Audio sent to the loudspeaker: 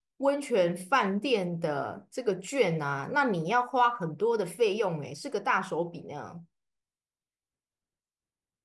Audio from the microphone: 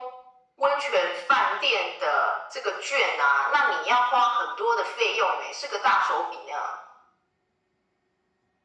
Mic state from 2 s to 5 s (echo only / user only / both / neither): echo only